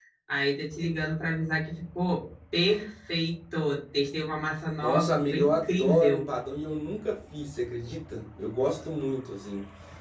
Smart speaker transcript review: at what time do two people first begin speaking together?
5 s

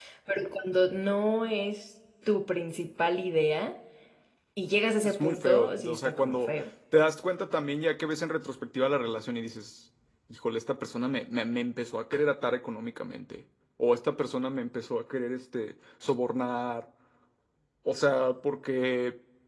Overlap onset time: 5 s

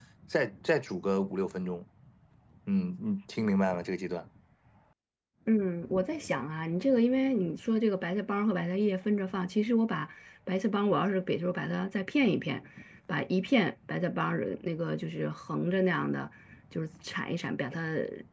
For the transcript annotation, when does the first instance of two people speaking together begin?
none

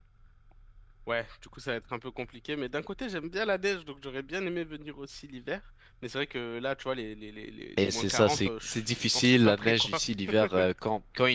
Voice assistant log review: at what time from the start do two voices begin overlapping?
8 s

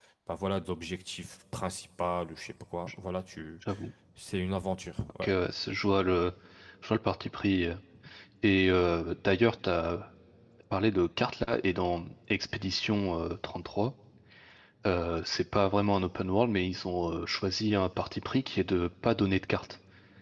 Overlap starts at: none

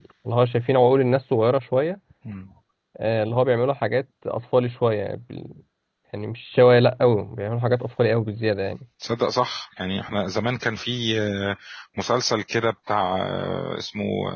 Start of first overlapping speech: none

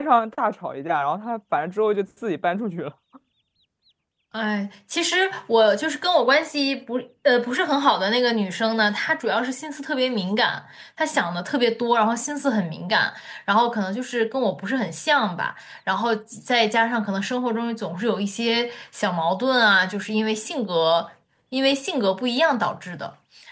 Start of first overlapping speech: none

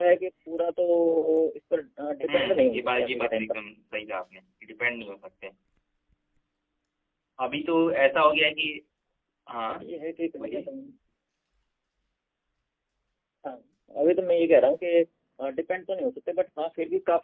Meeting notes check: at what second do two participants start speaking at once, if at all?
2 s

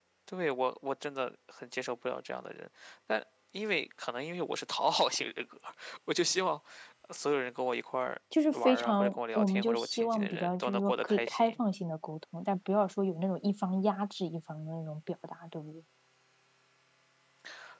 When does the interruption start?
8 s

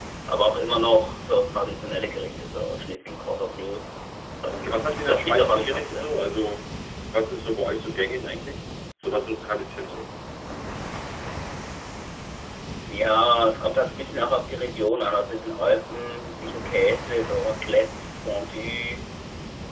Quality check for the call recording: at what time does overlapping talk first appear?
4 s

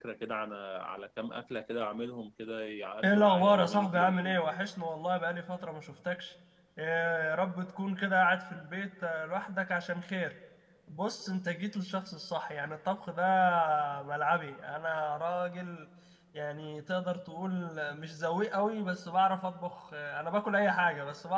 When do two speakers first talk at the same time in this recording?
3 s

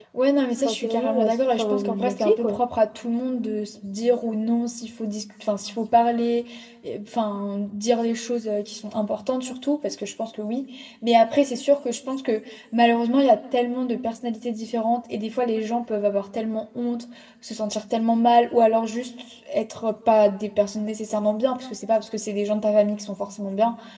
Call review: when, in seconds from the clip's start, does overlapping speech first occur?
1 s

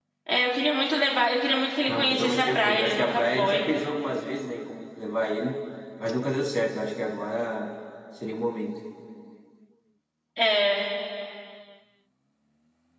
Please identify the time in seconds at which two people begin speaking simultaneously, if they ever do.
2 s

